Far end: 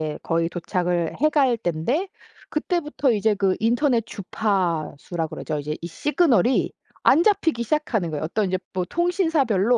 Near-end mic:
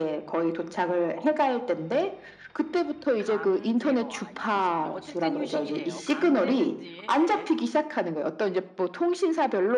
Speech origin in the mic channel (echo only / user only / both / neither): both